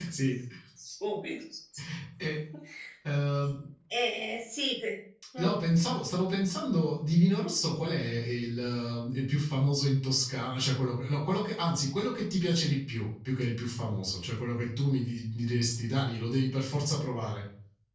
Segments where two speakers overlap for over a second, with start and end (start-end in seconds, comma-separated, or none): none